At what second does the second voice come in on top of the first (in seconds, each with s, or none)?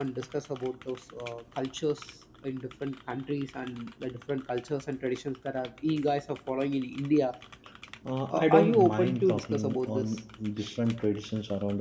8.3 s